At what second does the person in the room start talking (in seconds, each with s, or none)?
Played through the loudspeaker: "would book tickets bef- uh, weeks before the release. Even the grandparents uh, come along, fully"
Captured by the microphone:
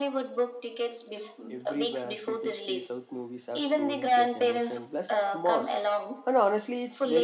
1.5 s